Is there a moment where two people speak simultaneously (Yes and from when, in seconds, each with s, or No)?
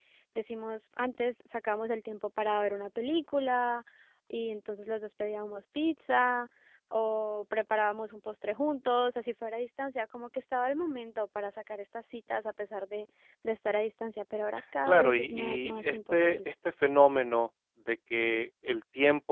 Yes, from 14.9 s